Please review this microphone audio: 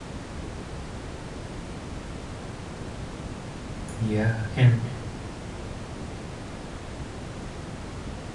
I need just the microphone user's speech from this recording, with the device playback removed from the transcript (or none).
Yeah, and